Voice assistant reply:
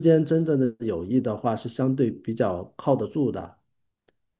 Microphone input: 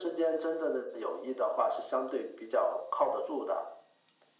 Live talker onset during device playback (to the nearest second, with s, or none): none